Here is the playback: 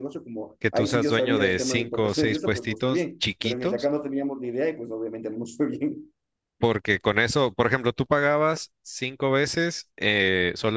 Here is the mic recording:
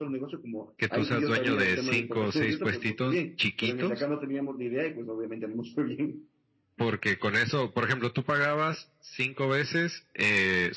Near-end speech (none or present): none